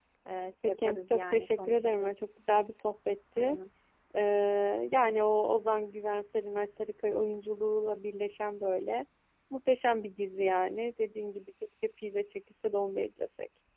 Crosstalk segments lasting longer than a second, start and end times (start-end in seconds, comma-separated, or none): 0.6-2.3